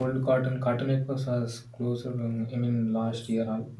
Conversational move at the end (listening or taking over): listening